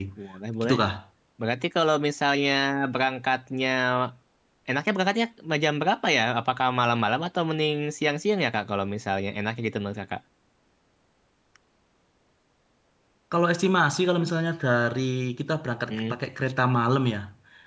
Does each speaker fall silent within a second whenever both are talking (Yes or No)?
Yes